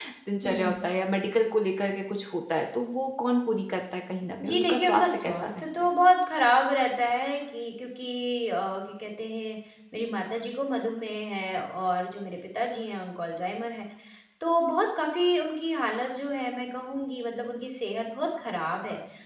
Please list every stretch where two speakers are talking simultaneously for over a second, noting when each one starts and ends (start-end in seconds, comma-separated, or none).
4.4-5.7